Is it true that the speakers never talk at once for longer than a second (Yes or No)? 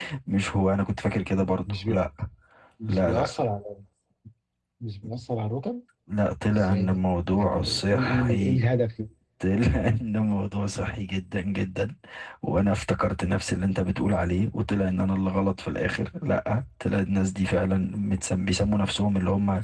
No